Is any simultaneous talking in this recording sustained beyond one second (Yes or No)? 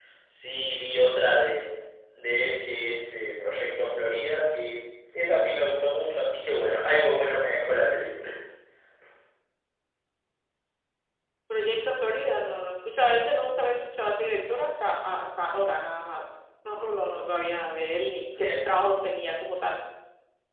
No